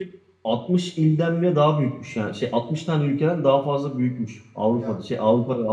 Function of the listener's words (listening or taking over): listening